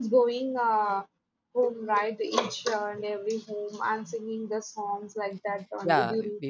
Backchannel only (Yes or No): No